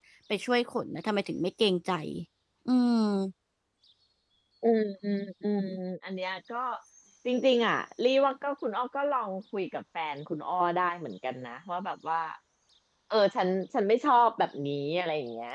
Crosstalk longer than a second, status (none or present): none